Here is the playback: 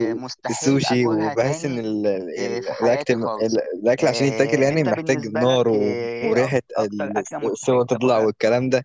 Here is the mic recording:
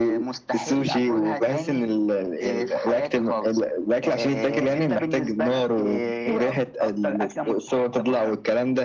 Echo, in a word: present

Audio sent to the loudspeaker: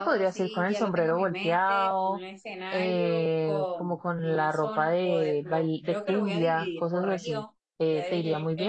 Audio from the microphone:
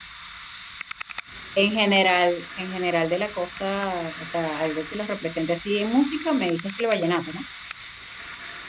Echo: none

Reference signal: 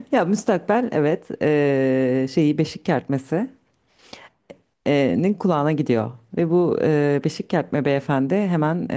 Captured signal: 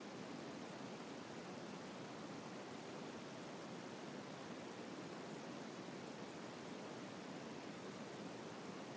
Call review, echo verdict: none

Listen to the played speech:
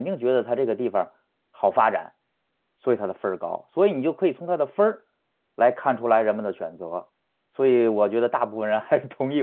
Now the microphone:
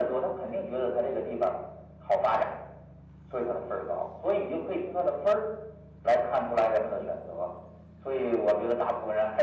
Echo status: present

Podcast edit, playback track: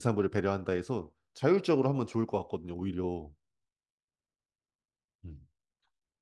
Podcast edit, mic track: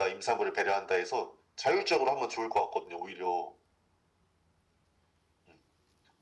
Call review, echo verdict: present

